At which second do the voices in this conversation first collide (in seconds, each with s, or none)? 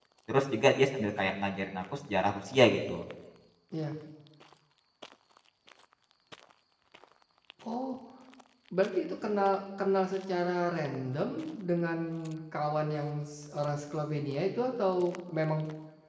none